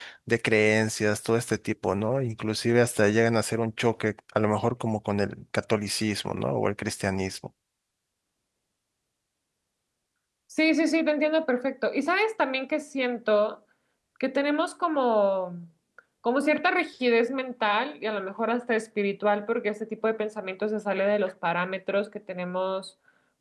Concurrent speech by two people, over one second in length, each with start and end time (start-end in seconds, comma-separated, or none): none